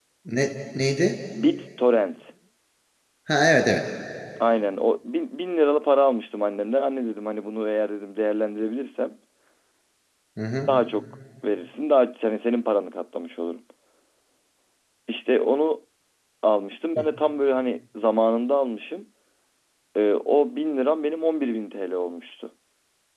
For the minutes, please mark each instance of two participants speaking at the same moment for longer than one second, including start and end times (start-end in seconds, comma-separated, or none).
none